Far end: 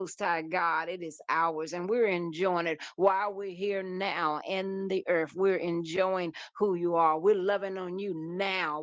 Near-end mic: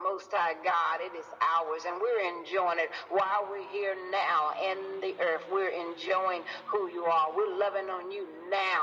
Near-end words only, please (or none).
none